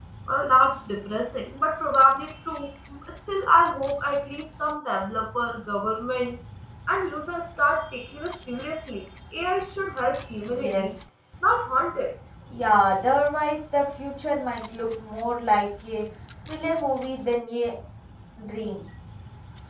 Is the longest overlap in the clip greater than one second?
No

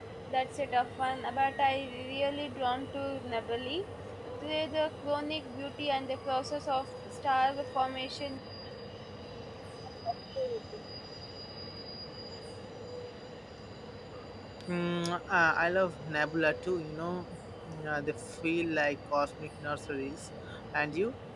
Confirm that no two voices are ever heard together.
Yes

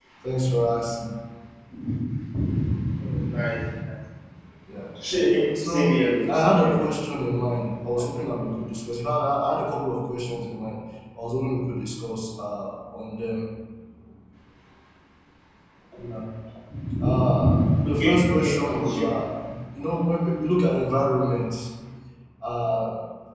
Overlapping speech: Yes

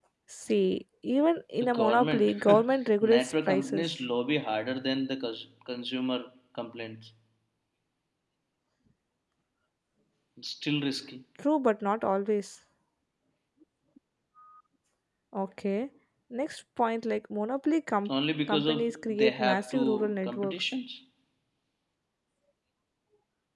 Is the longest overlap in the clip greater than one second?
Yes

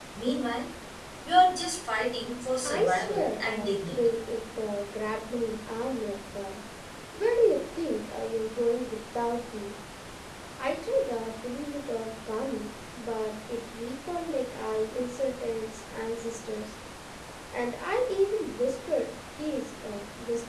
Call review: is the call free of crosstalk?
No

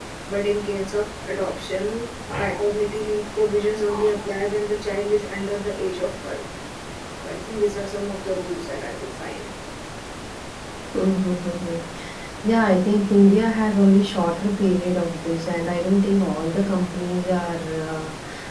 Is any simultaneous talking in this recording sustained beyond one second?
No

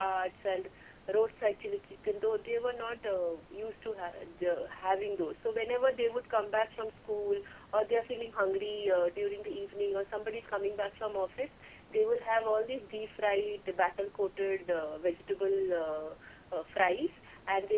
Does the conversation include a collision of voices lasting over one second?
No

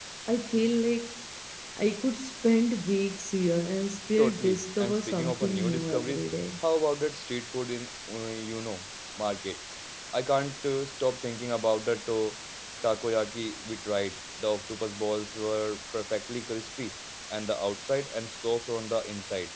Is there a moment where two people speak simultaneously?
Yes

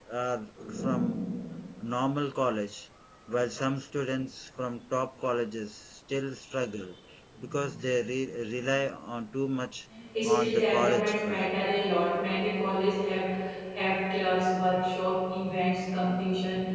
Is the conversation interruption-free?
No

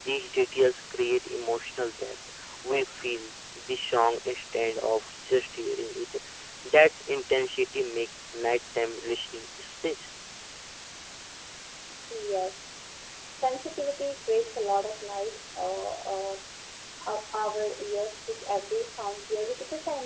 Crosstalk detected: No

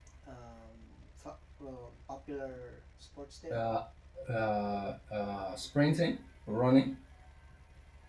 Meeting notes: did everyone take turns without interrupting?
Yes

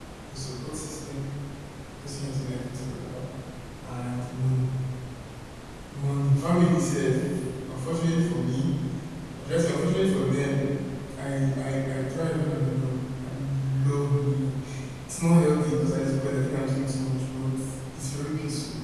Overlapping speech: No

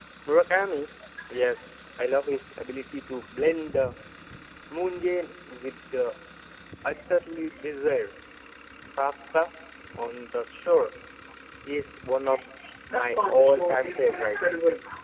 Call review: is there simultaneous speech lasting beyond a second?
Yes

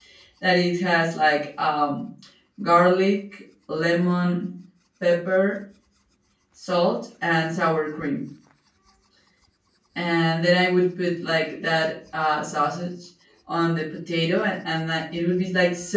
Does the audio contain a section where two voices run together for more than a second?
No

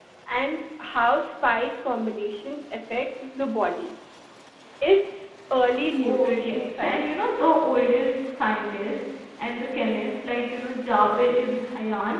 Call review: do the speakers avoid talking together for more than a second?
No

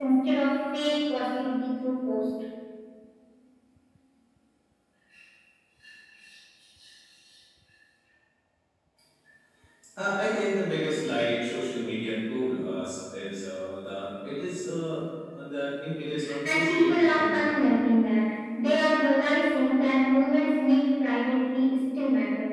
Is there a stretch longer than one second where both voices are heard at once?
Yes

